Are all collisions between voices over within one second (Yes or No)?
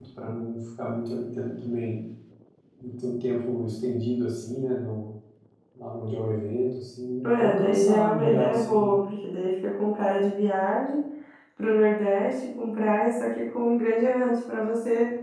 No